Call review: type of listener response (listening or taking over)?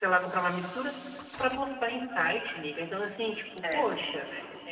listening